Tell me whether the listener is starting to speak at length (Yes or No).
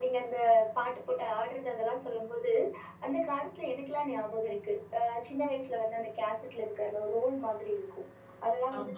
No